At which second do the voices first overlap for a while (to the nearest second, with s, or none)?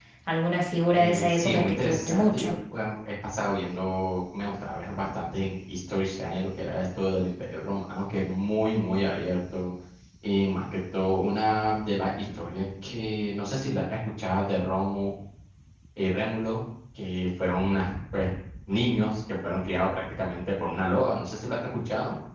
1 s